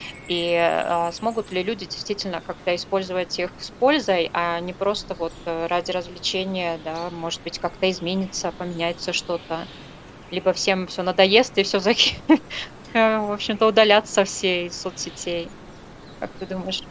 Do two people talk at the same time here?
No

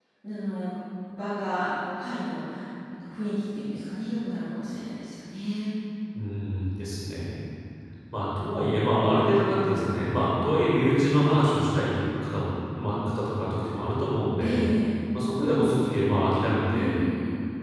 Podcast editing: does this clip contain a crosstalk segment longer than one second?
No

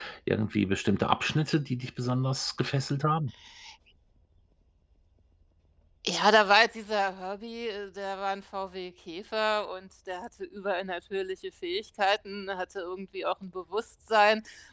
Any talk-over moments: No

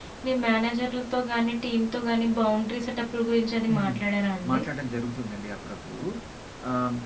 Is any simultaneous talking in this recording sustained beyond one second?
No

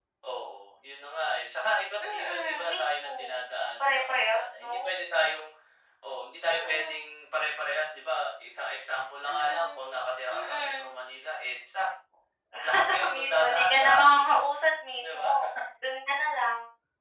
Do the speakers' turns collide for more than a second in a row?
Yes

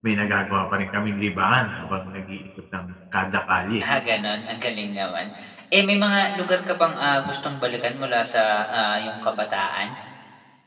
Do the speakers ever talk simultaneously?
No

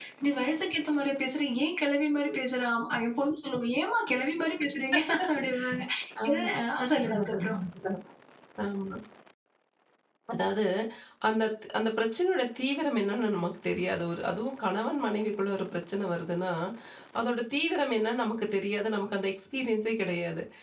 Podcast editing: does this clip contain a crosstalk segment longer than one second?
No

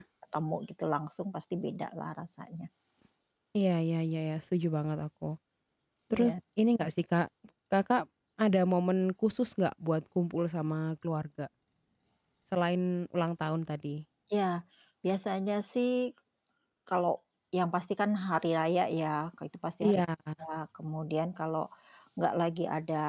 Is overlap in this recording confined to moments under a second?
Yes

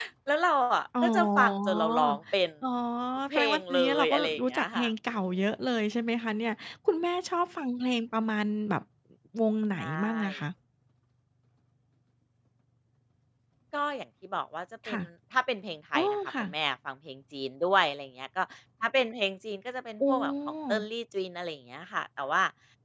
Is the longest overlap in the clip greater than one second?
Yes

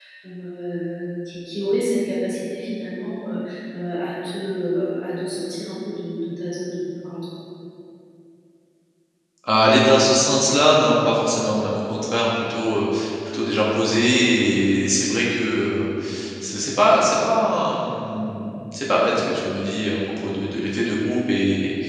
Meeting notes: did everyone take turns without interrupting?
Yes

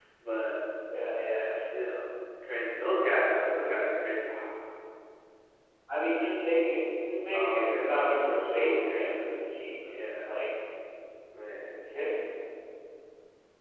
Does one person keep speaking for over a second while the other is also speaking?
Yes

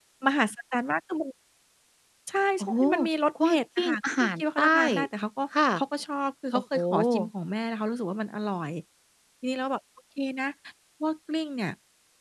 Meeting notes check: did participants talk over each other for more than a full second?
Yes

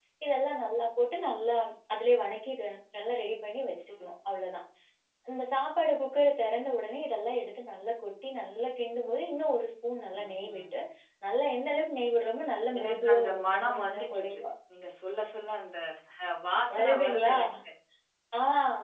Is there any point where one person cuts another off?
Yes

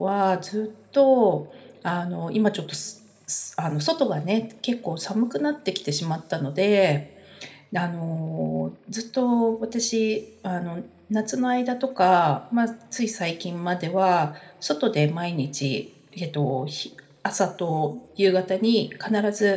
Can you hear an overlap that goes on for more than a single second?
No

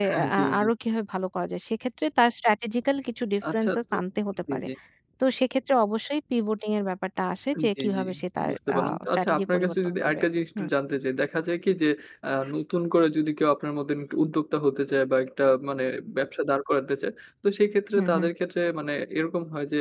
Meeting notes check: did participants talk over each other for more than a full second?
Yes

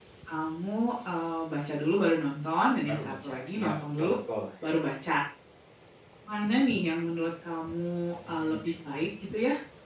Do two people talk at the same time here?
Yes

